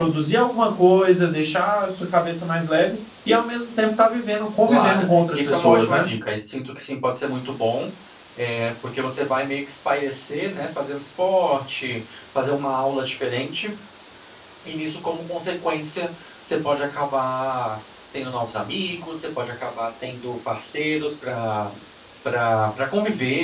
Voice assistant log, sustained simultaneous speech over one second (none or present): present